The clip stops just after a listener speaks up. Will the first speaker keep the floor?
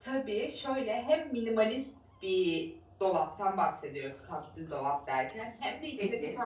Yes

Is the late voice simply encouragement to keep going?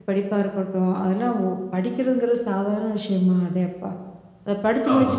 Yes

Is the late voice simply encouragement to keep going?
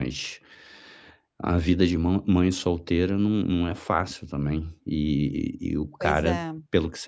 Yes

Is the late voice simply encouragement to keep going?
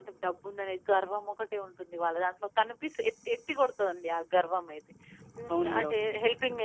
Yes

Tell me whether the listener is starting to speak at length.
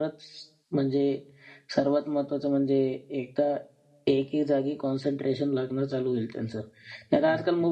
No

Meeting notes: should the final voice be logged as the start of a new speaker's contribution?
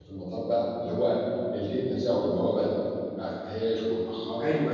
Yes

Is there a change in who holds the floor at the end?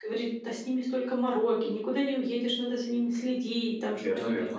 No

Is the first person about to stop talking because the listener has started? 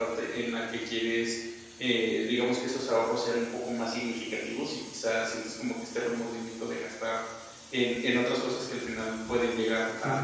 No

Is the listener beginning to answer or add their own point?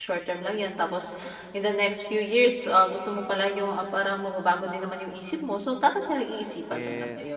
Yes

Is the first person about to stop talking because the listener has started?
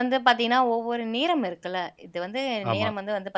No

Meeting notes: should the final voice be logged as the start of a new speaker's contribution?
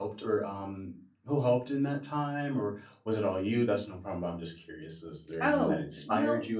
Yes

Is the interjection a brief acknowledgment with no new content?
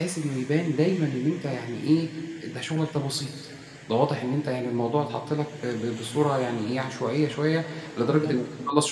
Yes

